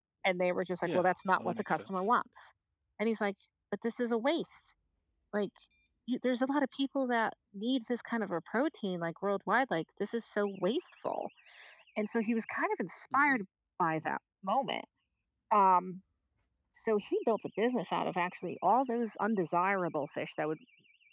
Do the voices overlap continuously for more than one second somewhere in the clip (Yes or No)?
Yes